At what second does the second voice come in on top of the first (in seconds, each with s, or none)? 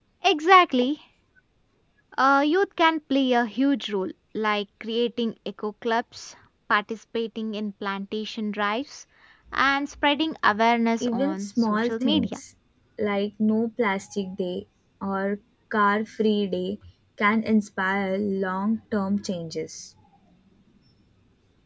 11.0 s